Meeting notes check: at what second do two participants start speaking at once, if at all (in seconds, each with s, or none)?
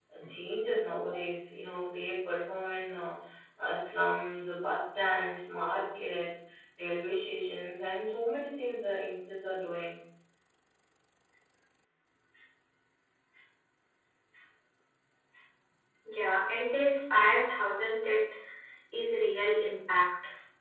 none